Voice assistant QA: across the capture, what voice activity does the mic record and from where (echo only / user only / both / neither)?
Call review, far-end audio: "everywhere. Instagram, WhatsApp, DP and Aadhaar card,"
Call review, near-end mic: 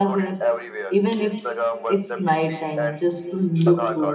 both